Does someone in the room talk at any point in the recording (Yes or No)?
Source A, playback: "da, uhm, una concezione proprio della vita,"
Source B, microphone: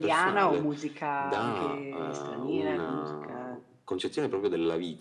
Yes